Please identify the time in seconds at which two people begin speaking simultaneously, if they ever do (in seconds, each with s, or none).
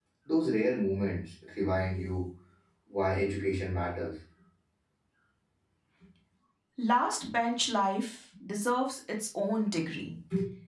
none